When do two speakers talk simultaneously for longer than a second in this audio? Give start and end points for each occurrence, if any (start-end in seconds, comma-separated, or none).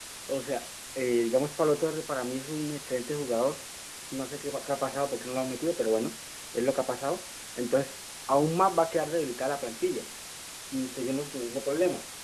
none